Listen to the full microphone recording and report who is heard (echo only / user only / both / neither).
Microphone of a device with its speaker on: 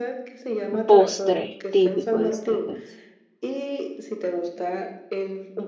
both